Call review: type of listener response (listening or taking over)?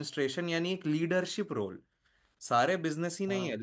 listening